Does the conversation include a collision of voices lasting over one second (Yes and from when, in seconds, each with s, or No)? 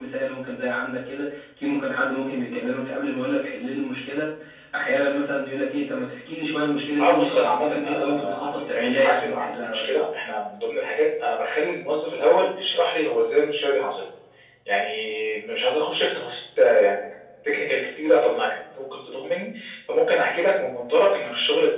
Yes, from 7.0 s